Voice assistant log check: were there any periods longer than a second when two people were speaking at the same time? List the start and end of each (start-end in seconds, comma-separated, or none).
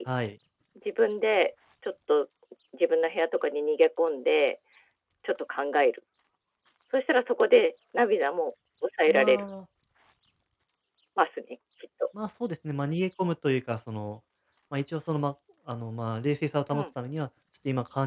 none